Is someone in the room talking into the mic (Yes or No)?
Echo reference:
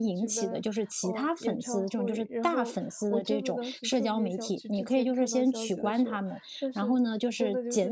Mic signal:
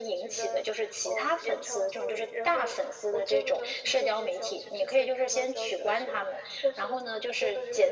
No